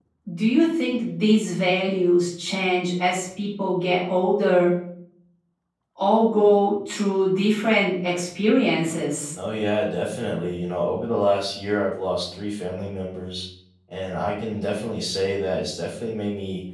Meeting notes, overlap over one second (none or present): none